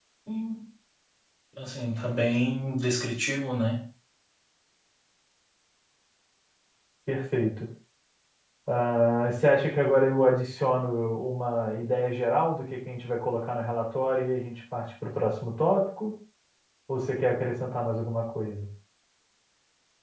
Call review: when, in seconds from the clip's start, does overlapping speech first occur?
none

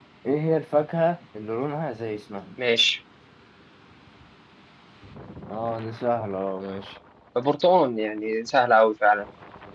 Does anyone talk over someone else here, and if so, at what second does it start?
none

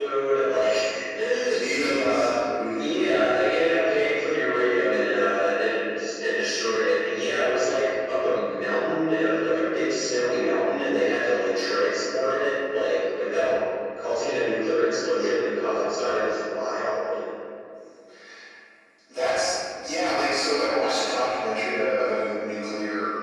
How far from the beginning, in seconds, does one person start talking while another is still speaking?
2 s

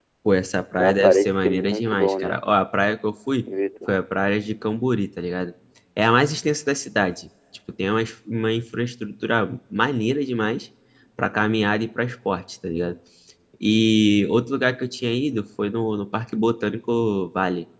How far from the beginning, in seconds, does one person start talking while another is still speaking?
1 s

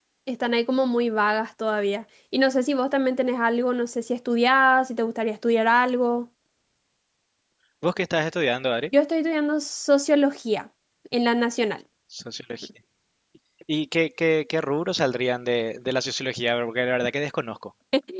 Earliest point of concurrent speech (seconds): none

